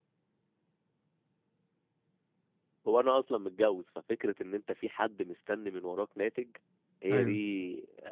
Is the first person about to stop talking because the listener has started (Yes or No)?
No